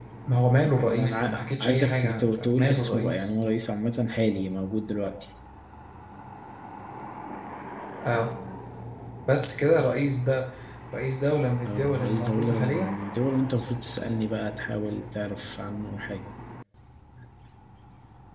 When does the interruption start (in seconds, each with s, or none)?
0.9 s